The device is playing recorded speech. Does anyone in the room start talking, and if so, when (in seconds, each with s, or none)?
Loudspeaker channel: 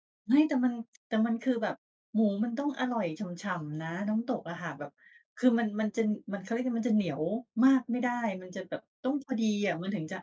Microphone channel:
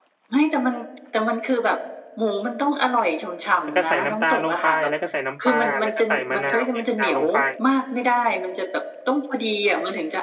3.6 s